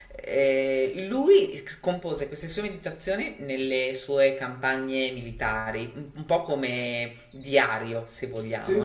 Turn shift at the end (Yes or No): No